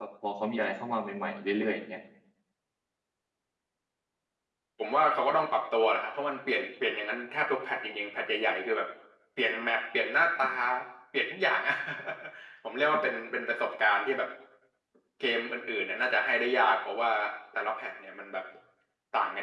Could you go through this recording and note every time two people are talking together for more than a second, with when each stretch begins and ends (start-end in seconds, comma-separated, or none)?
none